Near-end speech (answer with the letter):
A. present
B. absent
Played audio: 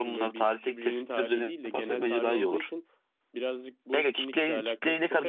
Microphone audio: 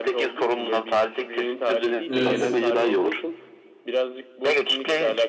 A